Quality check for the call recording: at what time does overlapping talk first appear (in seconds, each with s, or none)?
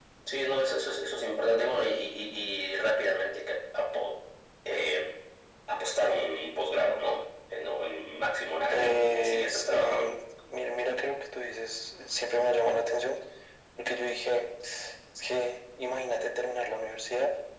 8.7 s